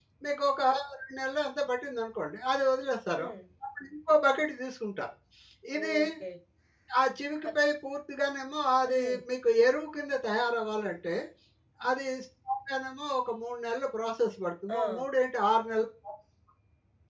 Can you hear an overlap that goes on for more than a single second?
No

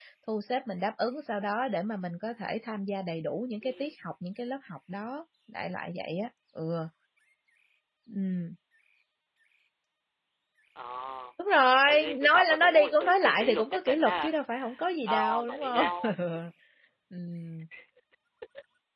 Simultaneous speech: Yes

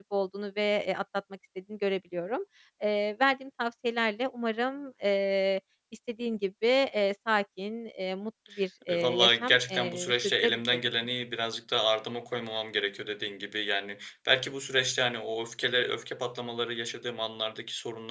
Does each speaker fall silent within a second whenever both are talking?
No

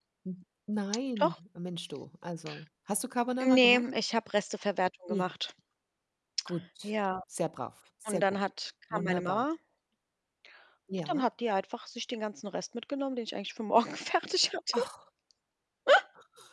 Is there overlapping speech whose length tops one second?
No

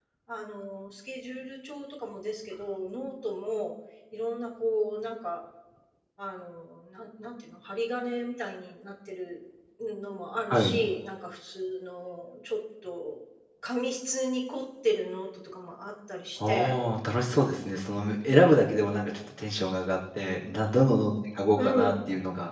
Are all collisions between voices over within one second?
Yes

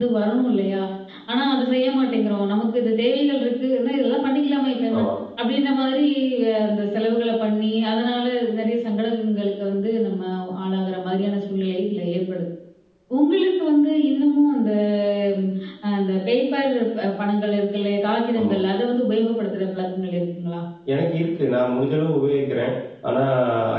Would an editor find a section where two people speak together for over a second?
No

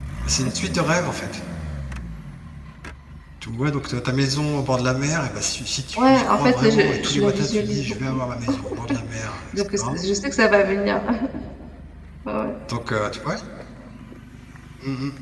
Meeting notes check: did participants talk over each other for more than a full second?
Yes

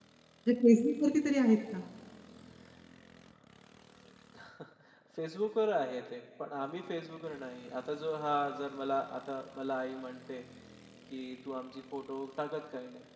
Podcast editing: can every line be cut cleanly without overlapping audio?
Yes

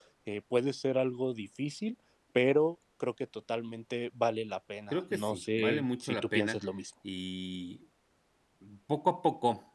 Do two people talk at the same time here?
Yes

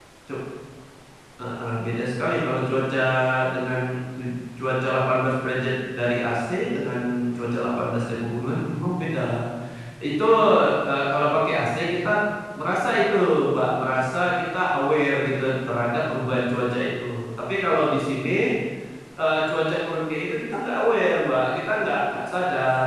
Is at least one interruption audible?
No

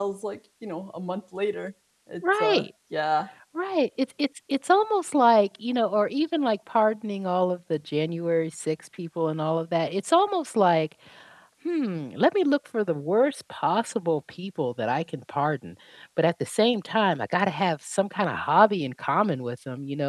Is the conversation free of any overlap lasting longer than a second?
Yes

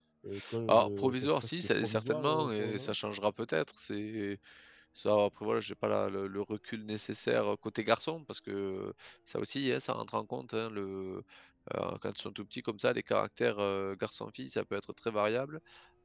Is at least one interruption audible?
Yes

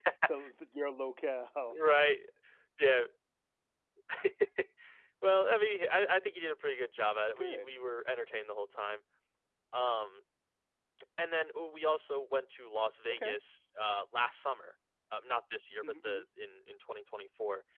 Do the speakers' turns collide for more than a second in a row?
No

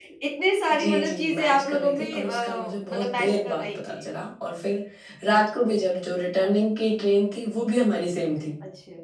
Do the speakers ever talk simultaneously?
Yes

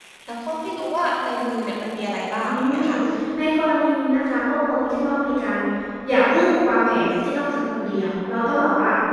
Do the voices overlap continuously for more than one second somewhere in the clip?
No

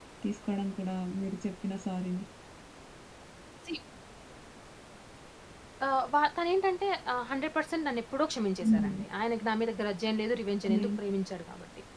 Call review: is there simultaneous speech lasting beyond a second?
No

